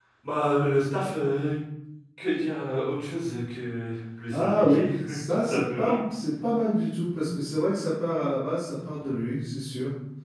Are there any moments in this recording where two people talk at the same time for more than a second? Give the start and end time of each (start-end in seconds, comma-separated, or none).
4.3-6.0